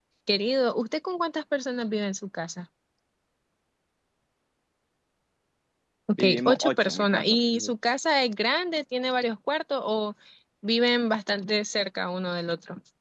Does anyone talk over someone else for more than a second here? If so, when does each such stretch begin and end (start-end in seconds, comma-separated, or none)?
6.1-7.7